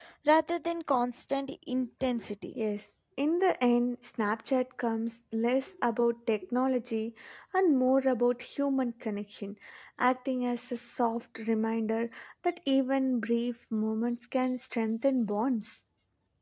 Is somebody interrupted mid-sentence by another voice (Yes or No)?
No